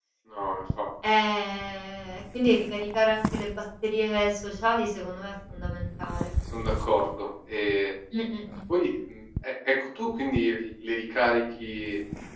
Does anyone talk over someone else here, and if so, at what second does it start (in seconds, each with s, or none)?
none